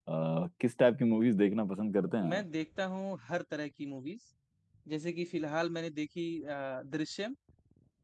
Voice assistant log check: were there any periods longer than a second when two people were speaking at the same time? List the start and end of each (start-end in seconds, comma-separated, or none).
none